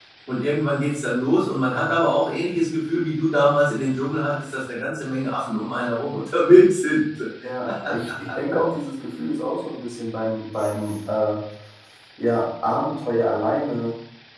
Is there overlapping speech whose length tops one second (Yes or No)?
No